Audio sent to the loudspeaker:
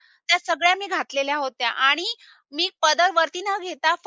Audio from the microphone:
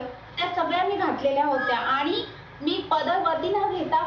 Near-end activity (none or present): none